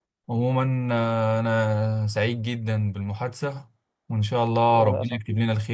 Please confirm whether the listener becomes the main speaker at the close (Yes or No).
No